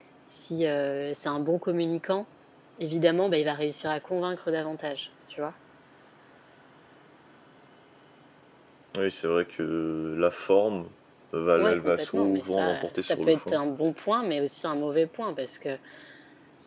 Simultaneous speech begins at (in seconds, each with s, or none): 11.6 s